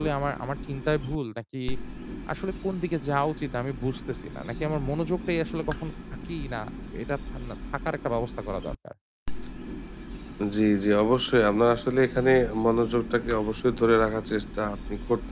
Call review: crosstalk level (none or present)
none